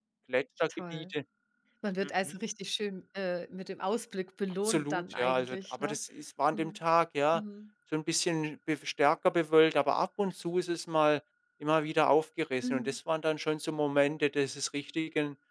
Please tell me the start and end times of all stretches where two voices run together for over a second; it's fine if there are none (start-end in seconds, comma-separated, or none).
4.6-6.0